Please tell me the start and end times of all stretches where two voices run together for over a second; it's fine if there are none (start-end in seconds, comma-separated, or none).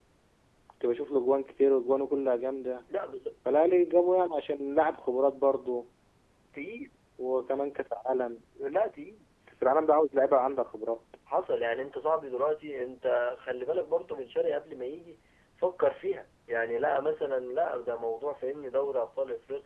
none